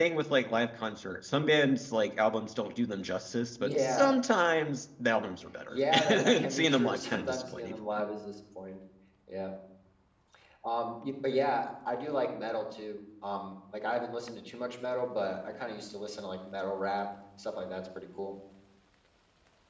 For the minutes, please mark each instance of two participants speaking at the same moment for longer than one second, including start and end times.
5.7-7.8

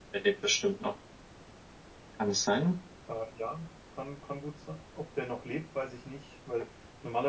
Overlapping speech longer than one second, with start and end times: none

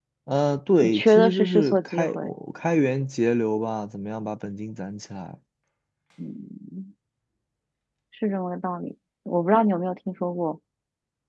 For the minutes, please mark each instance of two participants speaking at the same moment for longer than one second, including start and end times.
0.8-2.3

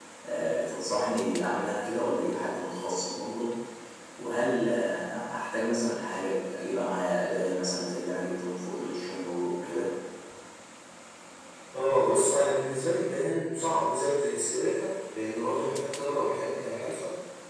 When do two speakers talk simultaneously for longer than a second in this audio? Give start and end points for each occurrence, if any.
none

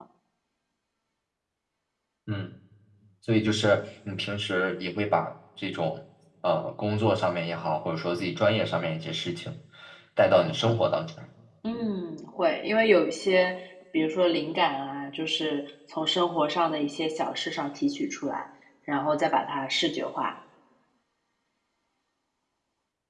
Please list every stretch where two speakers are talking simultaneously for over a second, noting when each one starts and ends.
none

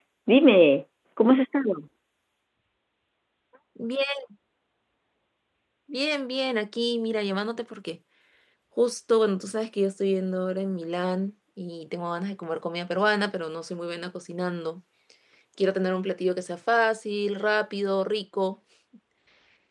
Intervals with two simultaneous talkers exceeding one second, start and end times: none

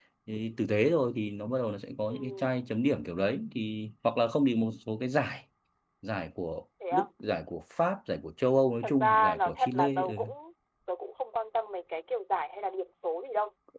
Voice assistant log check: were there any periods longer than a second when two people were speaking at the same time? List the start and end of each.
8.8-10.2

